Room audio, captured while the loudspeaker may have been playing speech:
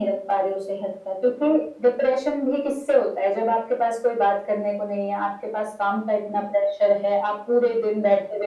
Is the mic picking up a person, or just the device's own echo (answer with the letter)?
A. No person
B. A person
A